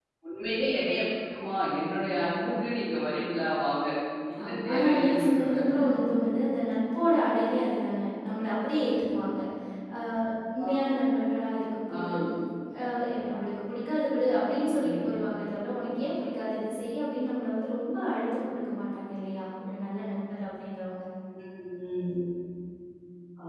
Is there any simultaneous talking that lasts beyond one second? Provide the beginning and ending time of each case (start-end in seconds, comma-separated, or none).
4.4-5.6